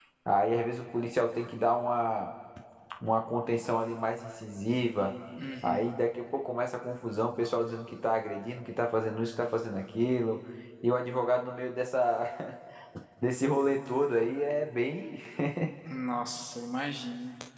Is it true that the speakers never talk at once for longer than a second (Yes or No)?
Yes